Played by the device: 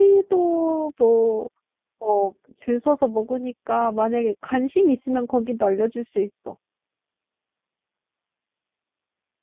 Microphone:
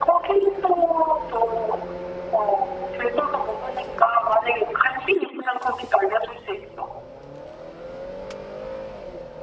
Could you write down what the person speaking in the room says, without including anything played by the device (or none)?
none